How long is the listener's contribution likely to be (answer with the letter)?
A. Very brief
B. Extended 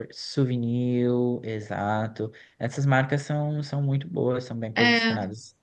B